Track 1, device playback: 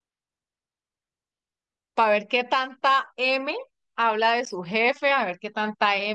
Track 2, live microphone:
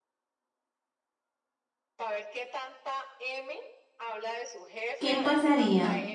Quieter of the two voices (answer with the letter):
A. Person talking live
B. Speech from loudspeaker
B